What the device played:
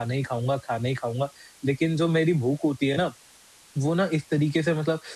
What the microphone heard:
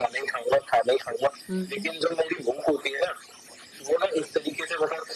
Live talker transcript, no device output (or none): हुँ, हुँ।